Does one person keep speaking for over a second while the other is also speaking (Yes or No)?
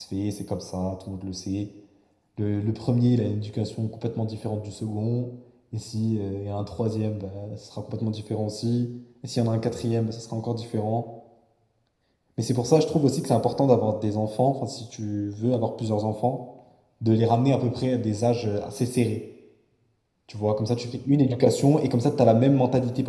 No